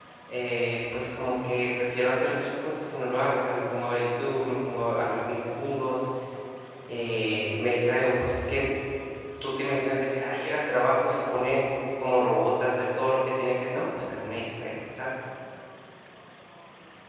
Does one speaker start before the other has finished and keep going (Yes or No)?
No